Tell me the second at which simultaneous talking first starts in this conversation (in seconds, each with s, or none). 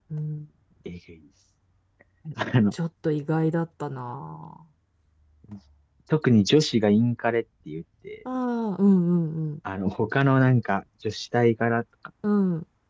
none